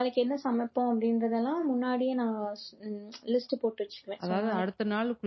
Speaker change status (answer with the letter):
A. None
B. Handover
B